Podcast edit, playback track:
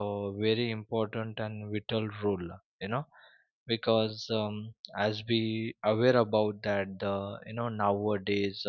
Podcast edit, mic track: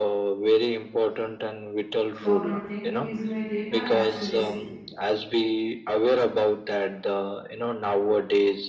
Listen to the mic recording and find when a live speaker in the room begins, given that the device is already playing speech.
2 s

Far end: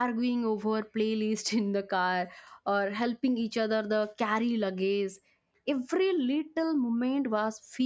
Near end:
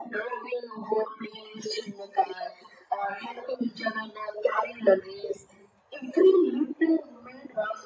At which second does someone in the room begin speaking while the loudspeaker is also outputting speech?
none

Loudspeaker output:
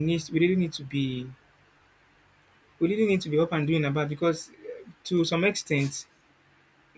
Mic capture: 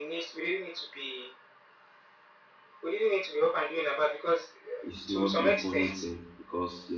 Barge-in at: 5 s

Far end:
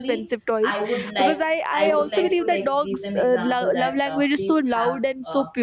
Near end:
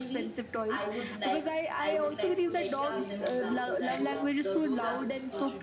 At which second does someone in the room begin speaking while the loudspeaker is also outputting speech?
3 s

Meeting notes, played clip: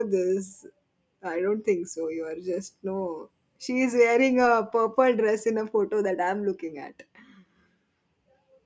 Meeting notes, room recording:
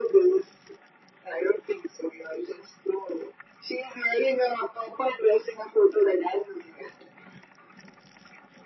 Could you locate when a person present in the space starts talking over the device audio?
none

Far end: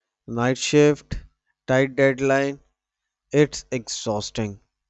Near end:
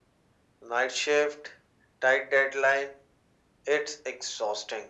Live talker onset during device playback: none

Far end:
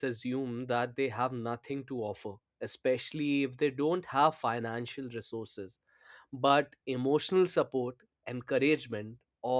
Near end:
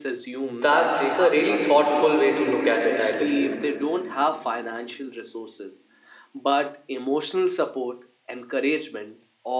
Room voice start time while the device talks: 0 s

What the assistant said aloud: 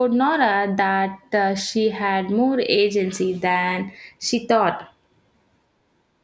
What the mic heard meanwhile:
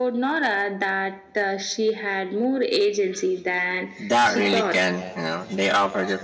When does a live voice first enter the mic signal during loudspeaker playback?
4 s

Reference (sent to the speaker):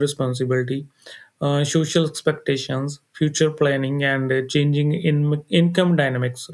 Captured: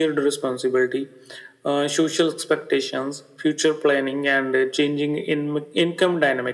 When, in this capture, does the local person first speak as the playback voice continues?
none

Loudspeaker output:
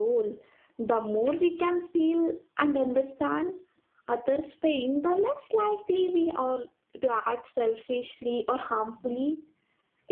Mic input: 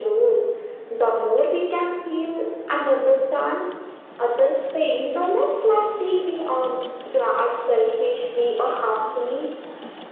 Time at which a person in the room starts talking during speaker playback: none

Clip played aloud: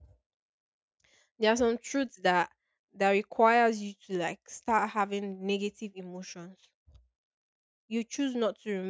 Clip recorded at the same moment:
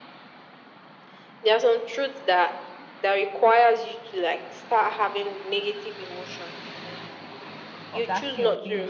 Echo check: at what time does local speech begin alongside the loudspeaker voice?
8 s

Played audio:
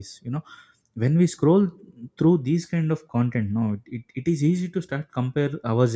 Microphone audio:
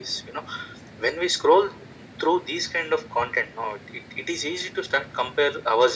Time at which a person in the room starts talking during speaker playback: none

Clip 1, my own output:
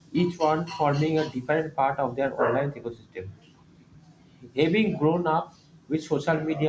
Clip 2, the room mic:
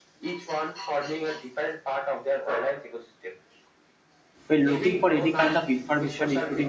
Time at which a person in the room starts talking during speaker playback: 4 s

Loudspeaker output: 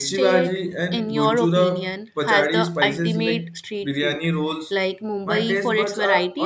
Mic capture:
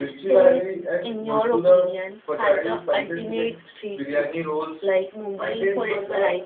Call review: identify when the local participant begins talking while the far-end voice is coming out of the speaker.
none

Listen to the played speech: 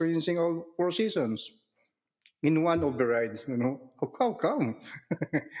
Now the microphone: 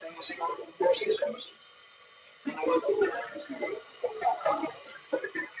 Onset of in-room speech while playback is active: none

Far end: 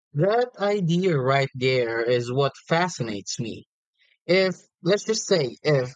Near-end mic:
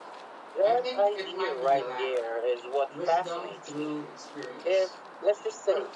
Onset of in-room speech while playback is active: 1 s

